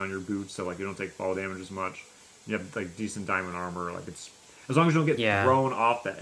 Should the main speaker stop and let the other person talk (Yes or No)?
No